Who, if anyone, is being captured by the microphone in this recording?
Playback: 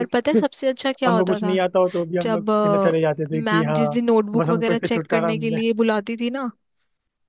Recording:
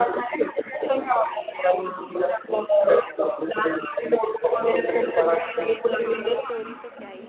both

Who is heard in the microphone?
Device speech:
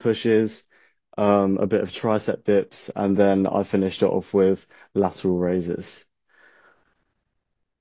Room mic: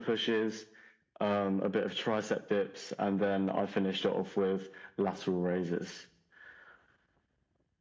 echo only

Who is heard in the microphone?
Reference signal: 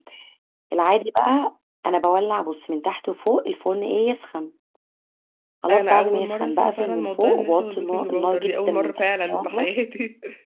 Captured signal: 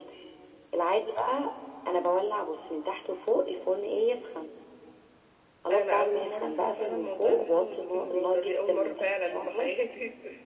echo only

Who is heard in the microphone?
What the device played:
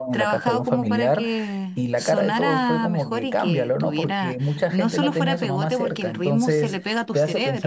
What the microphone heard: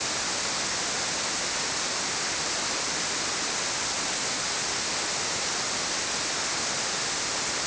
neither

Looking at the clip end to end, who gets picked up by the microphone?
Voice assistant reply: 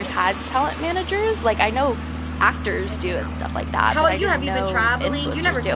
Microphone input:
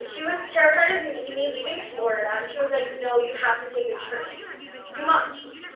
both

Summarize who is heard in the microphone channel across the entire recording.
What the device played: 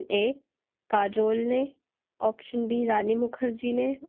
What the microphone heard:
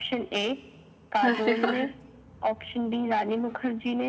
both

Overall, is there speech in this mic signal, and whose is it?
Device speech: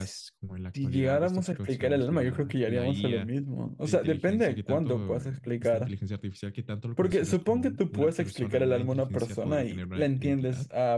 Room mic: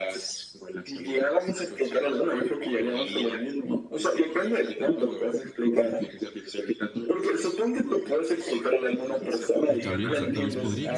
both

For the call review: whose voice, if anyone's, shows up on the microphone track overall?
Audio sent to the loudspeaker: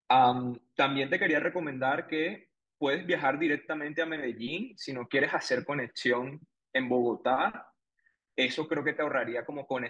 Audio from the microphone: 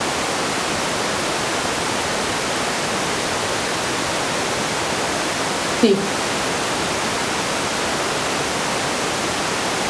user only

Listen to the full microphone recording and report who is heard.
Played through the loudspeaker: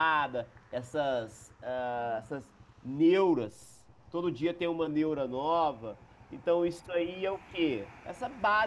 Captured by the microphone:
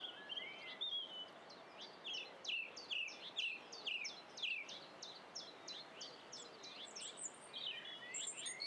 neither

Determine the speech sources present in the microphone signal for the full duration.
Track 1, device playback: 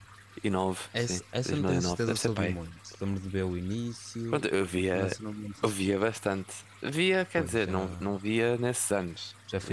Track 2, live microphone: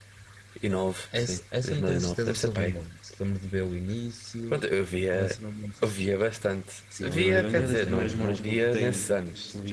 both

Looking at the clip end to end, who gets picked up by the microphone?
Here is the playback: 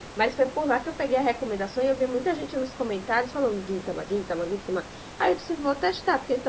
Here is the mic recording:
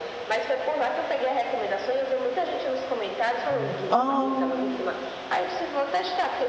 both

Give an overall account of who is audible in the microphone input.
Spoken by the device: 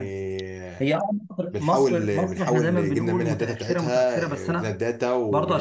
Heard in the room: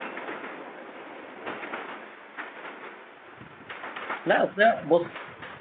user only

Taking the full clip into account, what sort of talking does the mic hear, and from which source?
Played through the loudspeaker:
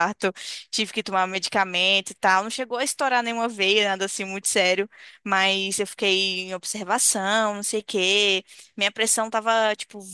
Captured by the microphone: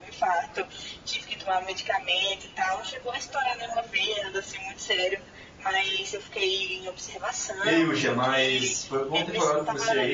both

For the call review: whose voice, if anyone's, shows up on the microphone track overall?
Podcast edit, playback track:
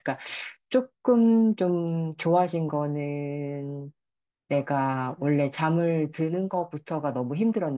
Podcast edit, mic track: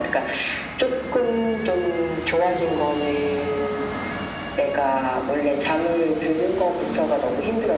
echo only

